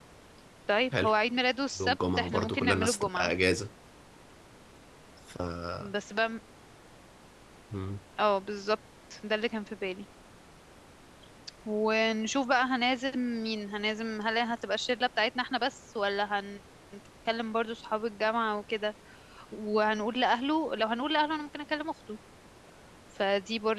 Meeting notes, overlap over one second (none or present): present